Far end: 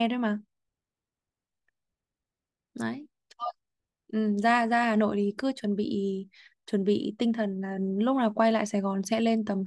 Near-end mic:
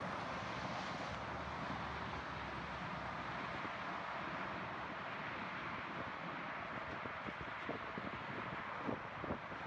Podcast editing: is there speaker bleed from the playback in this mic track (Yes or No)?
No